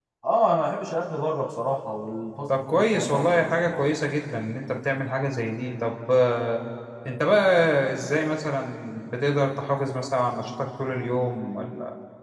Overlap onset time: 2.5 s

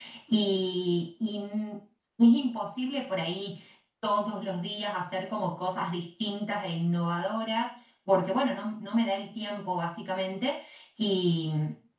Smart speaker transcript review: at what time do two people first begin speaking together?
none

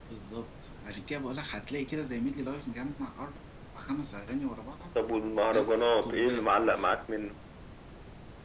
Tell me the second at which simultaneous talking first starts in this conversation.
5.5 s

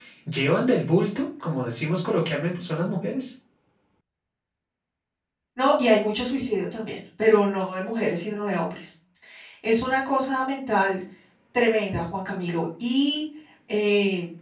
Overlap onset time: none

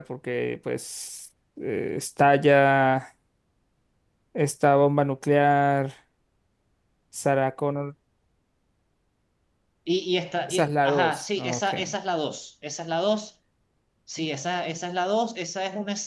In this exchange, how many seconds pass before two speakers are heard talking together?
10.5 s

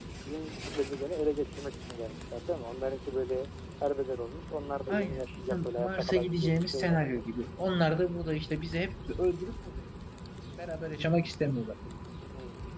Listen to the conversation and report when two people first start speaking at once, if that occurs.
4.9 s

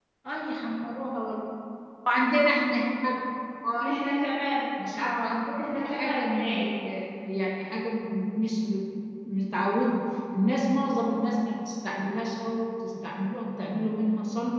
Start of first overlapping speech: 4.8 s

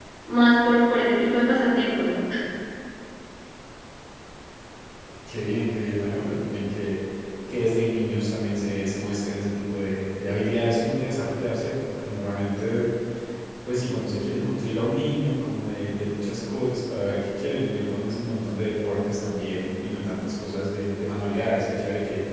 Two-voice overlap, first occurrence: none

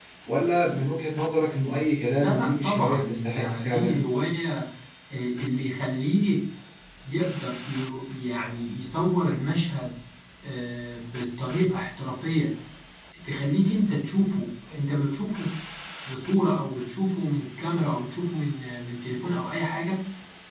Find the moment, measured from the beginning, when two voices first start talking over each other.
2.0 s

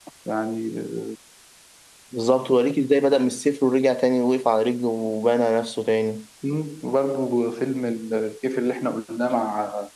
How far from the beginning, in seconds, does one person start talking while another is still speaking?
none

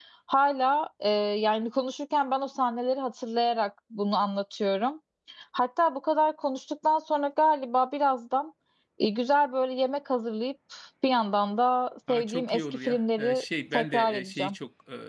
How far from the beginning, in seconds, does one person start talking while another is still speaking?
12.1 s

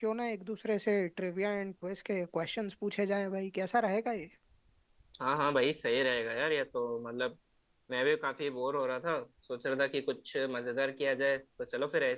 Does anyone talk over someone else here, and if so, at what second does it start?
none

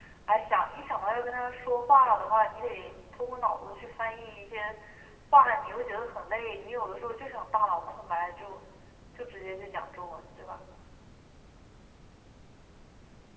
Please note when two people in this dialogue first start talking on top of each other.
none

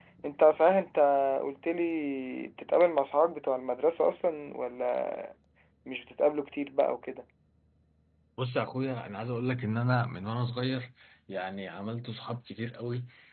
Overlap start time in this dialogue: none

